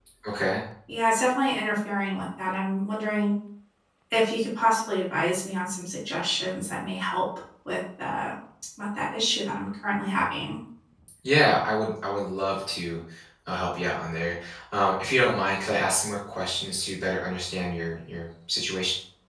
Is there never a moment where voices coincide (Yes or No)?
Yes